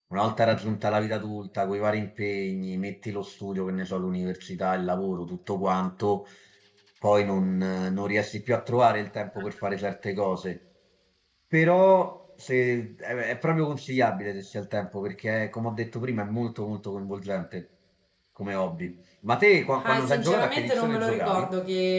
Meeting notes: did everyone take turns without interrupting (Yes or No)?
No